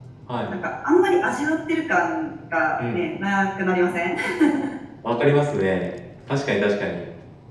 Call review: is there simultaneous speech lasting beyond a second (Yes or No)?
No